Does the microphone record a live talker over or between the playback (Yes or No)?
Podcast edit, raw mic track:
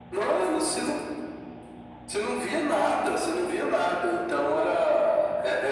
No